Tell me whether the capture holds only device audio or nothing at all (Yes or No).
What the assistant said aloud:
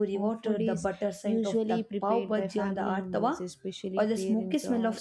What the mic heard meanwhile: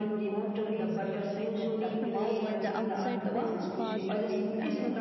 No